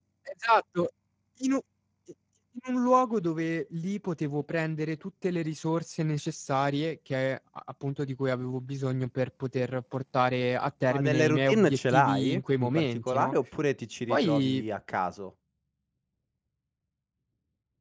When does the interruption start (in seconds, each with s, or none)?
10.9 s